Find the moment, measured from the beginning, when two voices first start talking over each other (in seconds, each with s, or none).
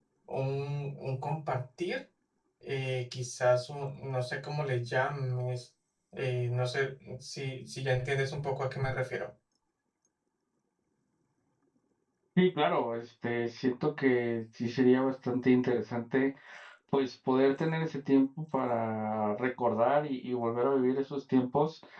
none